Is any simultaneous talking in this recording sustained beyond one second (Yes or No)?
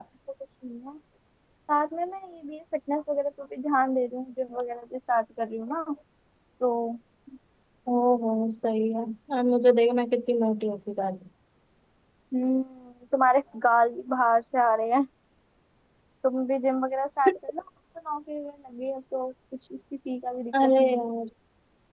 No